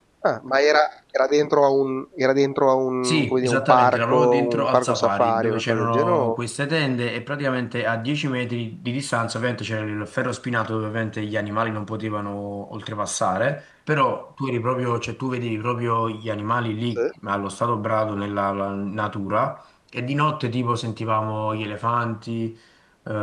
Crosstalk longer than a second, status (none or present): present